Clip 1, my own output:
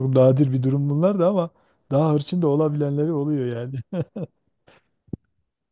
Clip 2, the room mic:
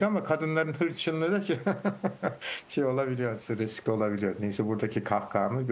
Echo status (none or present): none